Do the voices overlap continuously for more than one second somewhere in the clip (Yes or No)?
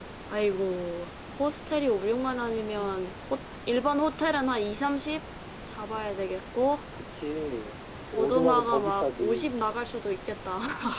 Yes